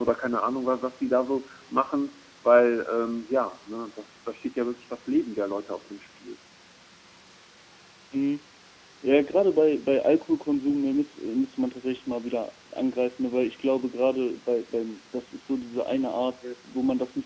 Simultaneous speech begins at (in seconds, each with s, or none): none